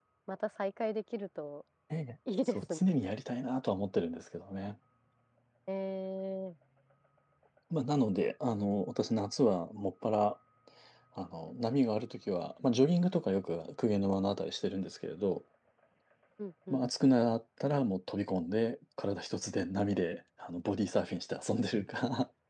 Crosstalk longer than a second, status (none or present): none